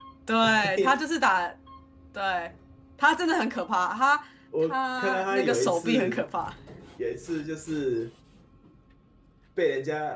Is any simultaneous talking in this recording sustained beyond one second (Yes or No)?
Yes